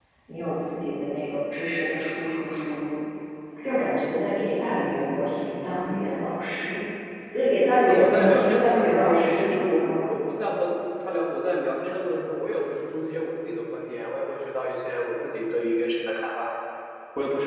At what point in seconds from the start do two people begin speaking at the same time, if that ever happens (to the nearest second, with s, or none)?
8 s